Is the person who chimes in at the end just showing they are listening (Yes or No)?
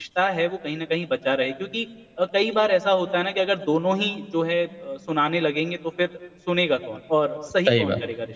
Yes